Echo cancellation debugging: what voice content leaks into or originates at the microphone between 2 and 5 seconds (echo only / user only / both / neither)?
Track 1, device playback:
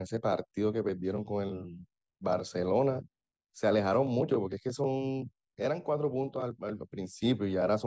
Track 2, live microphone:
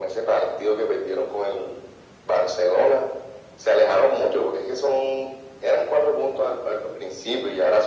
echo only